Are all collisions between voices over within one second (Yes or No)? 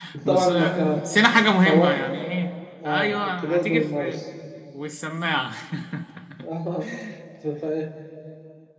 No